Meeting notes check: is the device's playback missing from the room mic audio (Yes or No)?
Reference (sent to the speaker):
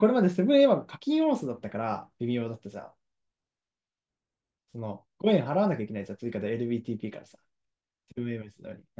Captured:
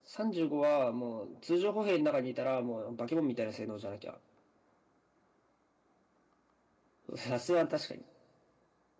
Yes